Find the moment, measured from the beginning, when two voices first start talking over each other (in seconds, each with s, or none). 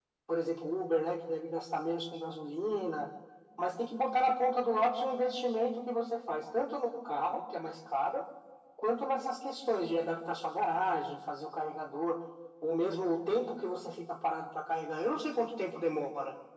none